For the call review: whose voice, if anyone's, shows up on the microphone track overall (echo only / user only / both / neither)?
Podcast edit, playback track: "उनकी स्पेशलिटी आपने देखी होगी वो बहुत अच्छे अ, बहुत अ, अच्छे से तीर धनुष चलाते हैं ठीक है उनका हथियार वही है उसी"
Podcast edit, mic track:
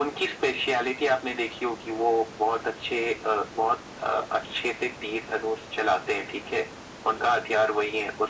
echo only